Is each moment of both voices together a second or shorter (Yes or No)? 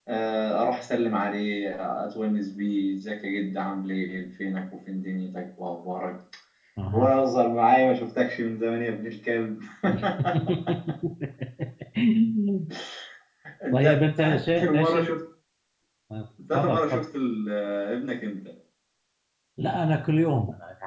No